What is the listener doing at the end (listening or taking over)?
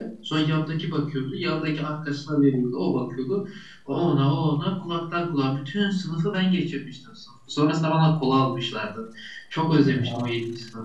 listening